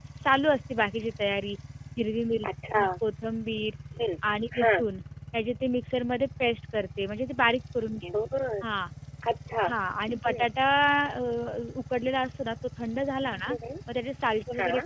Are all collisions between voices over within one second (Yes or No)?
Yes